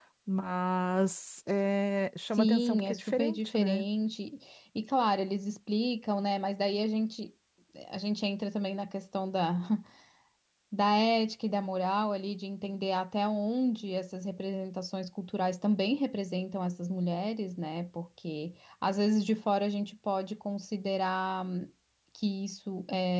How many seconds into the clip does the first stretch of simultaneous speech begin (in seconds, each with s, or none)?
2.3 s